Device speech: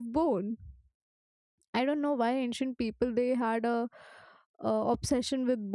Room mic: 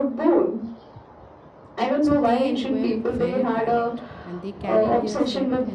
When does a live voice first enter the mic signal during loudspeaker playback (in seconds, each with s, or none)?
2.0 s